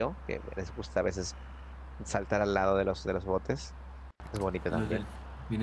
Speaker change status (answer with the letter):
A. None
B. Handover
B